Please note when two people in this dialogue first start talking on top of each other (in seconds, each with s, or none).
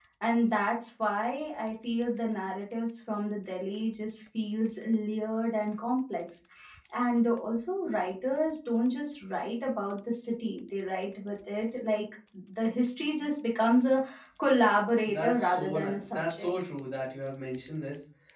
15.1 s